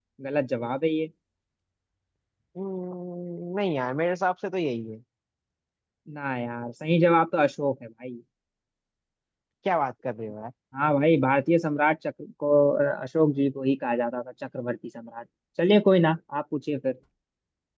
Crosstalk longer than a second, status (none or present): none